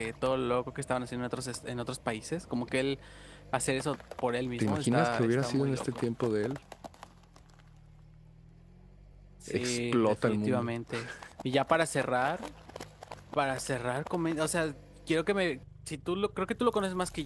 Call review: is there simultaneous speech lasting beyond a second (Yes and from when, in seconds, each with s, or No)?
Yes, from 4.6 s